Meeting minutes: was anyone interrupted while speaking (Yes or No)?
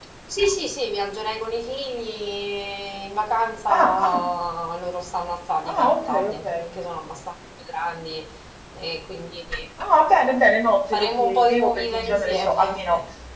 Yes